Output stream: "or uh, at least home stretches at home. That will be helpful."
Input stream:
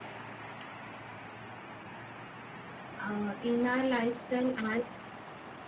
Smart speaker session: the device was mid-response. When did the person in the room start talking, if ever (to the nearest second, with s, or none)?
3 s